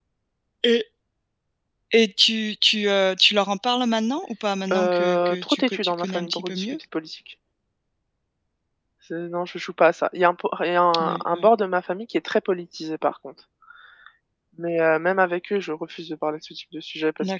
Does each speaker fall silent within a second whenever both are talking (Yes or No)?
No